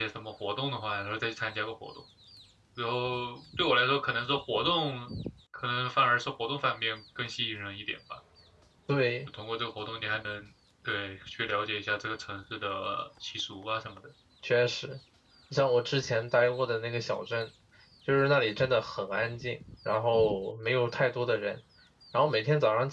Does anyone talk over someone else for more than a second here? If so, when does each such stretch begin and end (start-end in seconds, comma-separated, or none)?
none